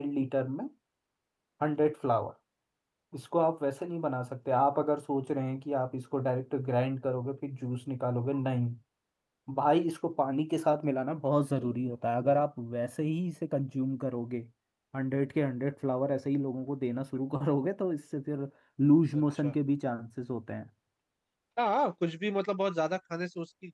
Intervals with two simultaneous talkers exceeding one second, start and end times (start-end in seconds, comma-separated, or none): none